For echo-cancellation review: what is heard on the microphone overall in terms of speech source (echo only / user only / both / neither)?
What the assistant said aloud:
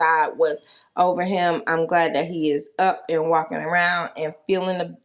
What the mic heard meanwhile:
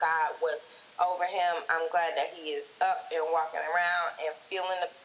echo only